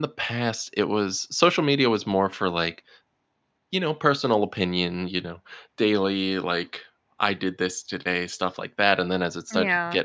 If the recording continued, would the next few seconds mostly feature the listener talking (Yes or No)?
No